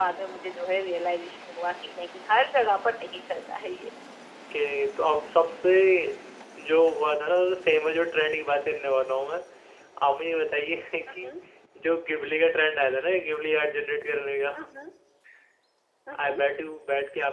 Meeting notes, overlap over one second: none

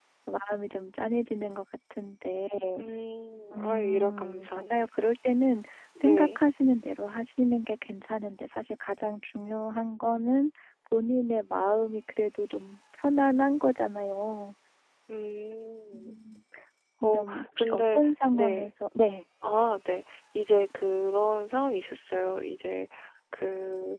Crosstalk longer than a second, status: present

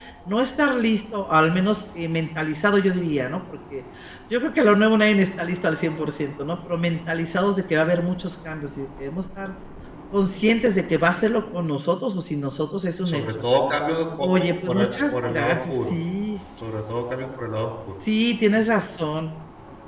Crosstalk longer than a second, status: present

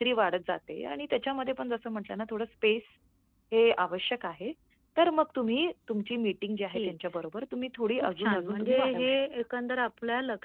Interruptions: present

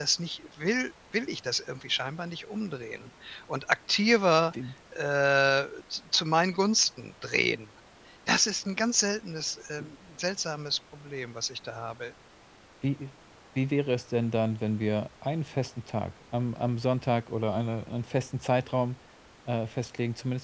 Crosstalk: none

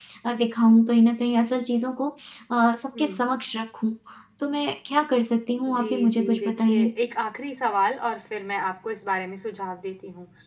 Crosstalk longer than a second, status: present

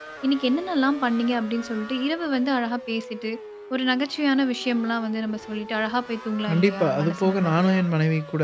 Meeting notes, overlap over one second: present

